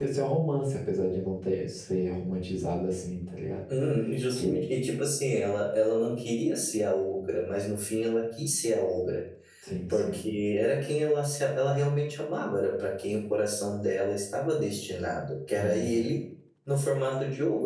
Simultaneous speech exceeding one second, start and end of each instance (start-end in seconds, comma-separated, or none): none